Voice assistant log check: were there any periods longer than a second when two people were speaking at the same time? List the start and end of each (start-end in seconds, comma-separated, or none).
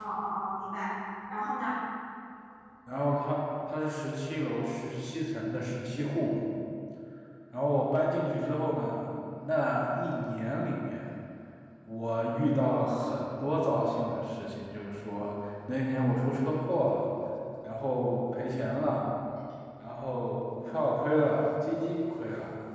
none